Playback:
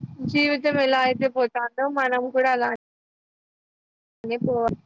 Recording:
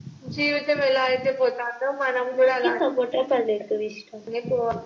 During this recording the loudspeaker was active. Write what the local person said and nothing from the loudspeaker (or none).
నాకి సపోటా పండ్లు ఎక్కువ ఇష్టం